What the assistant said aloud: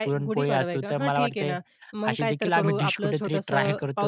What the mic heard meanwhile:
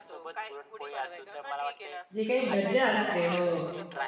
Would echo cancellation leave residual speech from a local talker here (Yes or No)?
Yes